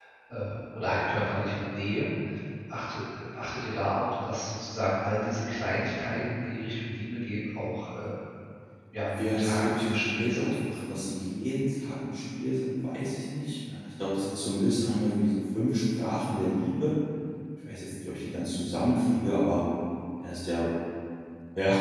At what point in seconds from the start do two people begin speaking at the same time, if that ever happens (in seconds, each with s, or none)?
9.0 s